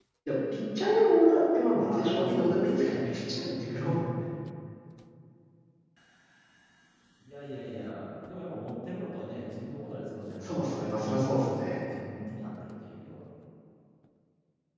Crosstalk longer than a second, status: present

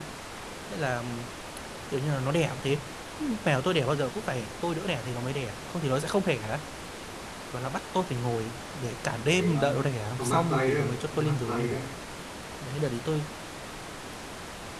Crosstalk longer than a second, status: present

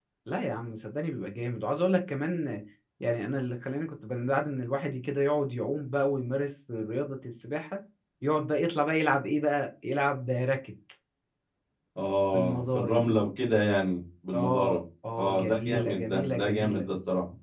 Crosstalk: present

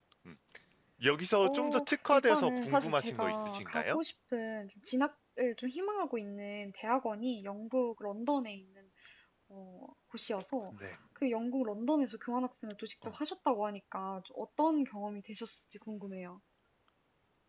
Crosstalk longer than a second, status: present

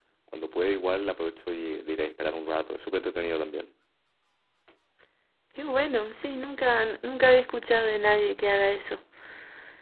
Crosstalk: none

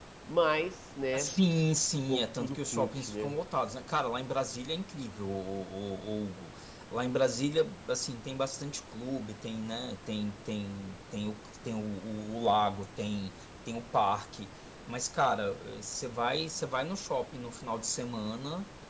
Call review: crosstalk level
present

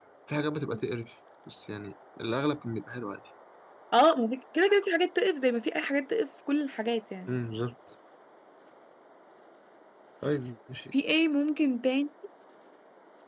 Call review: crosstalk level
none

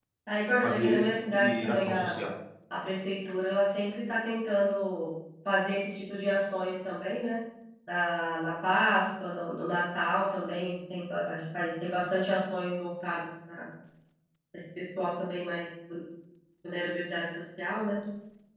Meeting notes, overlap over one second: present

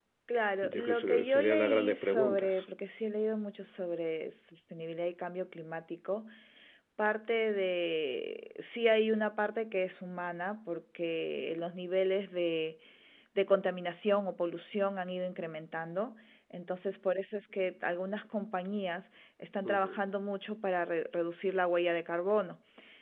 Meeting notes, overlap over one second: present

